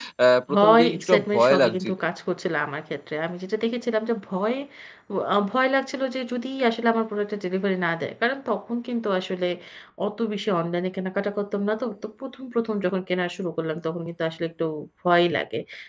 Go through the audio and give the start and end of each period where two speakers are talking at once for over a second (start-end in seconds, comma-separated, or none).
0.5-1.9